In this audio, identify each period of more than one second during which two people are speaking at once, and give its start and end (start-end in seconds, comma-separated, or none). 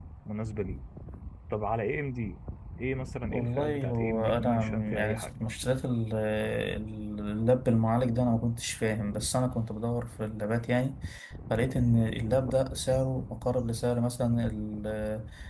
3.3-5.3